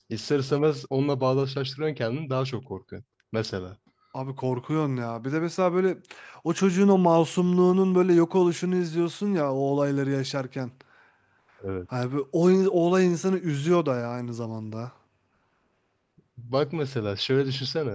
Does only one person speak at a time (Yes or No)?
Yes